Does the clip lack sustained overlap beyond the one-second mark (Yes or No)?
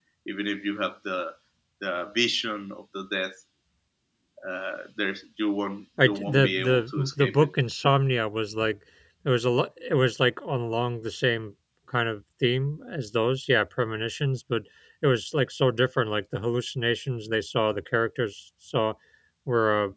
No